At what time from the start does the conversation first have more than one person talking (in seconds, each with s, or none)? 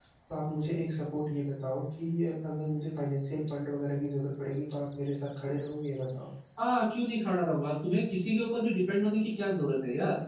none